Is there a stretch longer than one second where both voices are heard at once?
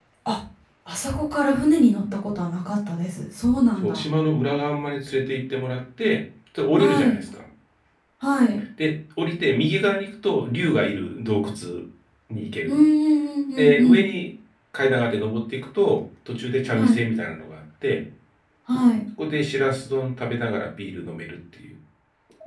No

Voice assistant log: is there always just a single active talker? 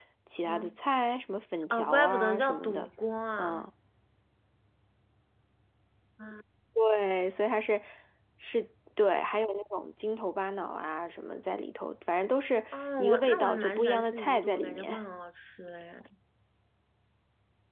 No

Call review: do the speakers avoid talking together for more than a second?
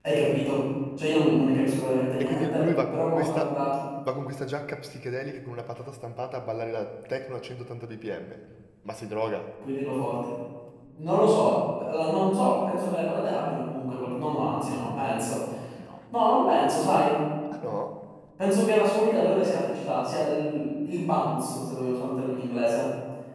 No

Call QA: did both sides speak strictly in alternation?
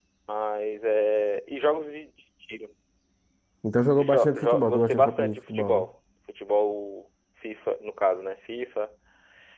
No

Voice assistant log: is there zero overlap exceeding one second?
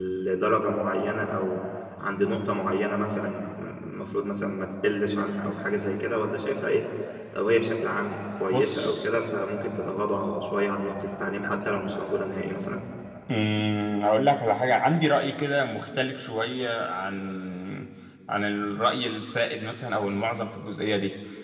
Yes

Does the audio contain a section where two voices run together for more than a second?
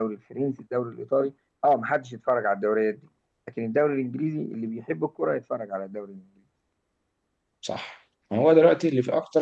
No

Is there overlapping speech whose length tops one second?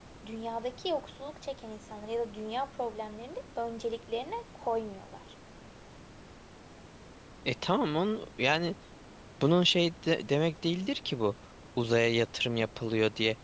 No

